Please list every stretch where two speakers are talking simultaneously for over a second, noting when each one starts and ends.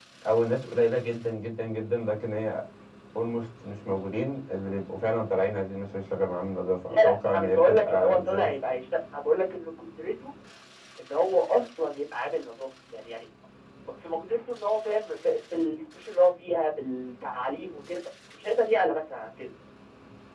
6.9-8.5

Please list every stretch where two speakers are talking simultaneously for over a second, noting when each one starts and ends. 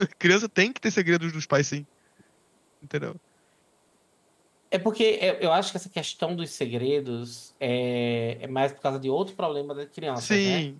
none

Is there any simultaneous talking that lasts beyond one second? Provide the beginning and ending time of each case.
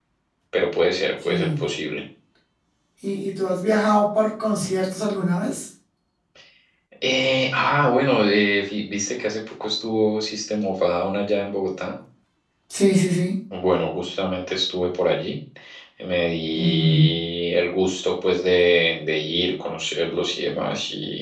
none

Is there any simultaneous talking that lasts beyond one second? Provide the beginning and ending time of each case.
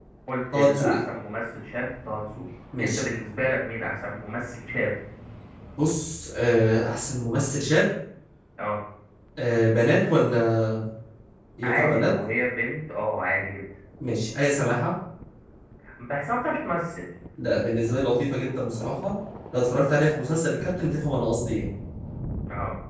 none

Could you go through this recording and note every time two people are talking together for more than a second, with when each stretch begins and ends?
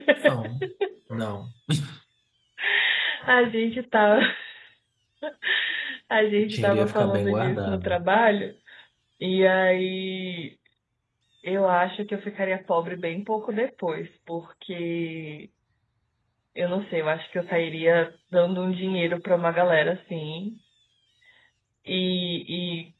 6.4-8.0

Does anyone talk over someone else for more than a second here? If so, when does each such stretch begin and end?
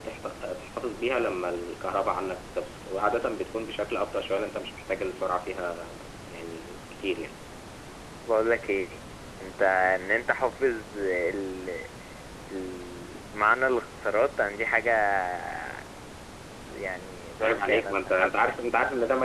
17.4-18.6

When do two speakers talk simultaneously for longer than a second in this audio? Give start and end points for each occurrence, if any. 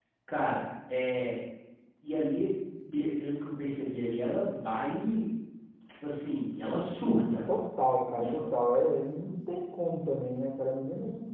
none

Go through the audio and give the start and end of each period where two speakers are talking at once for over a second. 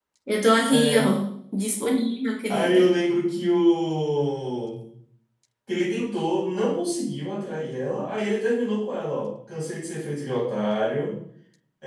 none

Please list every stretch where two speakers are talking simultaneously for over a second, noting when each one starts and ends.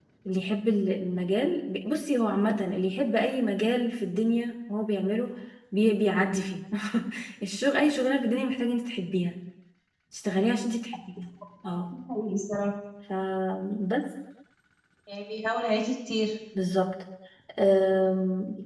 none

